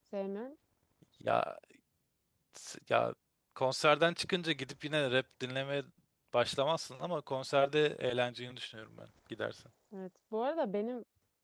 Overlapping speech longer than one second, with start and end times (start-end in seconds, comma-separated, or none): none